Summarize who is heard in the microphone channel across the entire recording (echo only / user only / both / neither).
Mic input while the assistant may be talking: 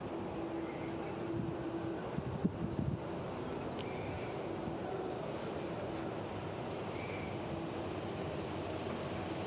neither